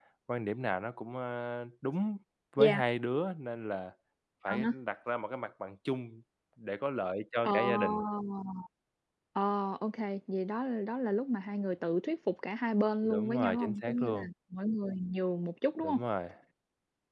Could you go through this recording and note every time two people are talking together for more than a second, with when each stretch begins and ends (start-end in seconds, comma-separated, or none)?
13.0-14.3